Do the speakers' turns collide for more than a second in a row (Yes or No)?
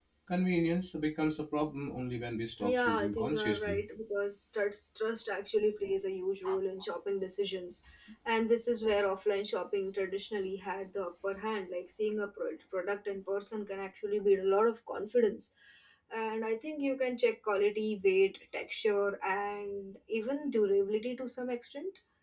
Yes